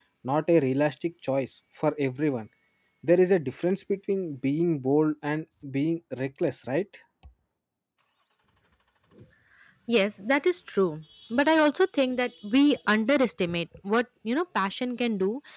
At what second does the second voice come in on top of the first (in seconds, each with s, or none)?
none